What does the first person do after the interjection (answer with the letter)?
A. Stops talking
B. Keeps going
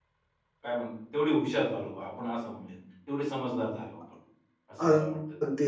A